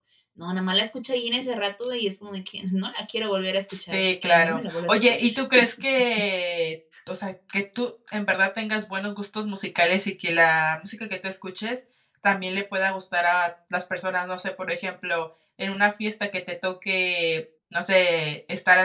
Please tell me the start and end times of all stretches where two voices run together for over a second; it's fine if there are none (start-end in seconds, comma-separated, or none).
3.9-5.2